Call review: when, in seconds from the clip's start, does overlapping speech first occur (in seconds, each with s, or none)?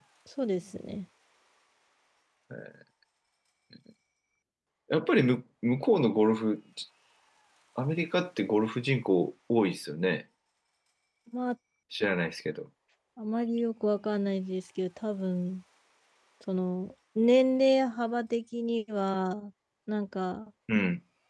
none